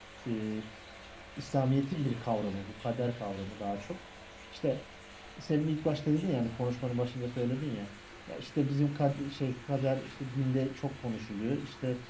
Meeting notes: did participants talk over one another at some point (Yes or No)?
No